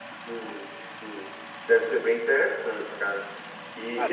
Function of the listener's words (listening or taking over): listening